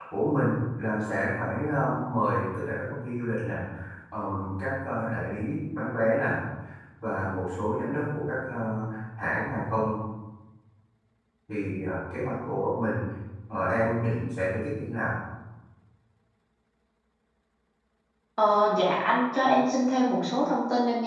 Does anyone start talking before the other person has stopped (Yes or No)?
No